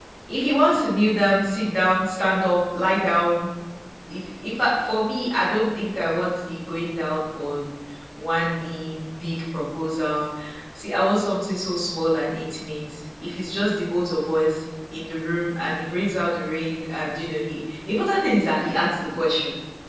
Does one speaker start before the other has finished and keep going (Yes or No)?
No